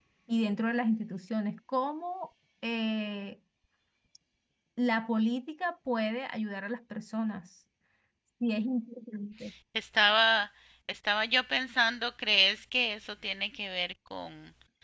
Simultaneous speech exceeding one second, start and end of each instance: none

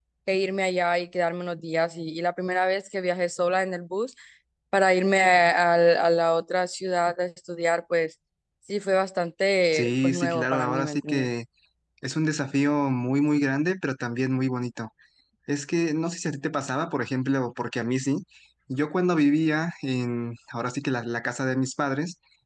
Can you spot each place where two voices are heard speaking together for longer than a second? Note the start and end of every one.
9.7-11.3

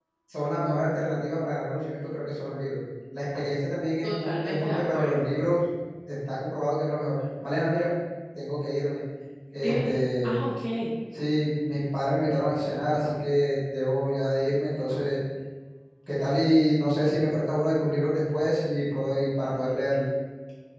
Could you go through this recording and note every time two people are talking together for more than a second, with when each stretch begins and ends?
4.0-5.3

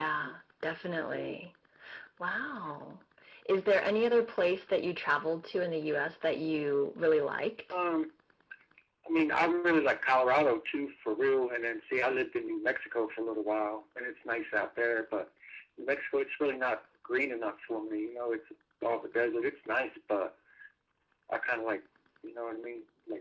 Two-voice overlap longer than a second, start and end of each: none

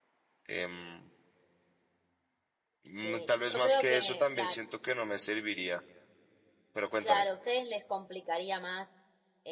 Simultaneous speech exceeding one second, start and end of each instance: 3.0-4.6

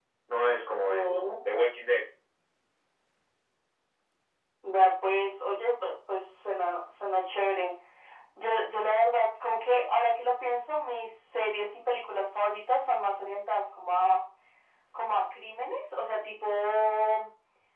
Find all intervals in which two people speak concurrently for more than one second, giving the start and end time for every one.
none

